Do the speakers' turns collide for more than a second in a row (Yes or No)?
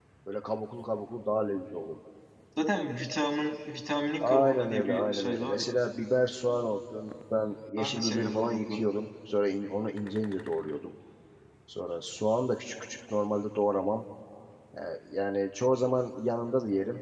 Yes